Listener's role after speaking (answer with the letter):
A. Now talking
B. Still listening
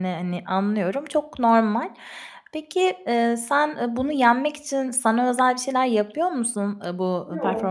B